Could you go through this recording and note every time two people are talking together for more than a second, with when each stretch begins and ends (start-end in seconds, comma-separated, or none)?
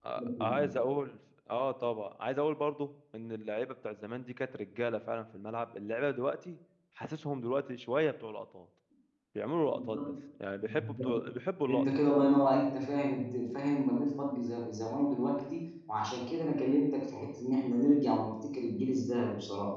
none